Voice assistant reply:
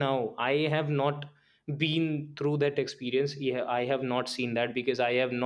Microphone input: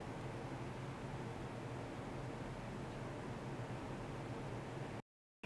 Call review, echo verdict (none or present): none